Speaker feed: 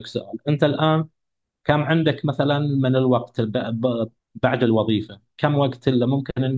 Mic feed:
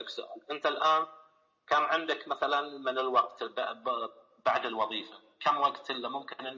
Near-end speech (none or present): none